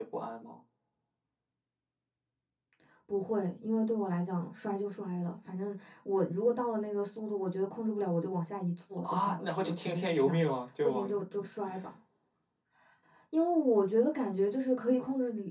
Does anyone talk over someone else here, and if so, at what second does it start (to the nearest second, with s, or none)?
9 s